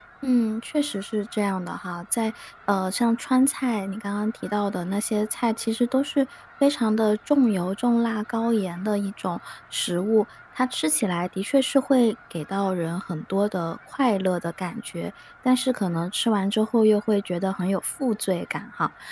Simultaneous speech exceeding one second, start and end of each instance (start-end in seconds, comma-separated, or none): none